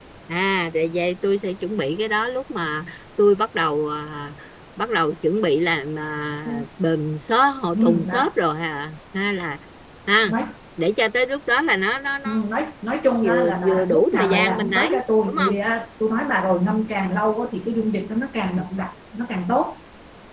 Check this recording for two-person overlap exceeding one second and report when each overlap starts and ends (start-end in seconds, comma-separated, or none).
13.2-15.6